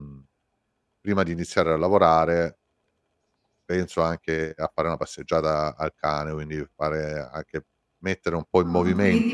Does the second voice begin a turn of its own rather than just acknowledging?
Yes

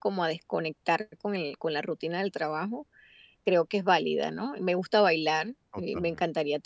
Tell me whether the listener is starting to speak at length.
No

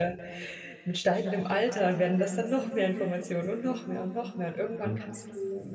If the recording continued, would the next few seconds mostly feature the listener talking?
No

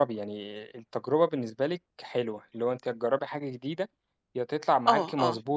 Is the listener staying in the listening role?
Yes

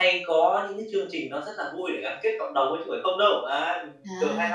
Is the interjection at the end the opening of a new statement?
Yes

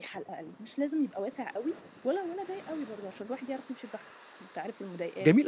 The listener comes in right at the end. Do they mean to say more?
Yes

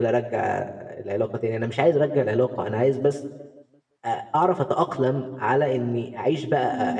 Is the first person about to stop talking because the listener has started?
No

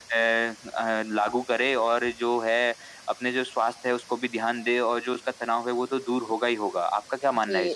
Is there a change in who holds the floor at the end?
Yes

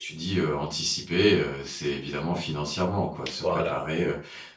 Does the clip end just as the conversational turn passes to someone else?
No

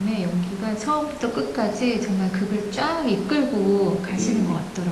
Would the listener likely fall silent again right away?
No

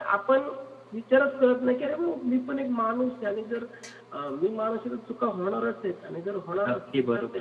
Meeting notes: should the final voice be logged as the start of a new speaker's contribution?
Yes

